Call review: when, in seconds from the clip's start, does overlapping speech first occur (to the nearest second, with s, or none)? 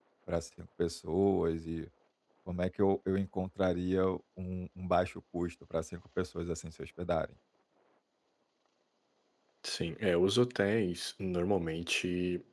none